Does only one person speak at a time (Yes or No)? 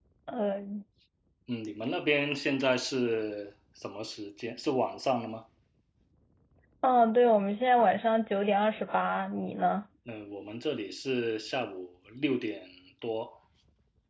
Yes